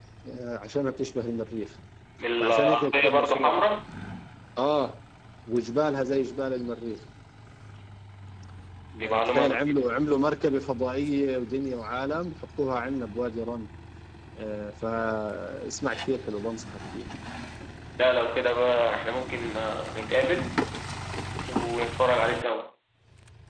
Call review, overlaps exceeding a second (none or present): present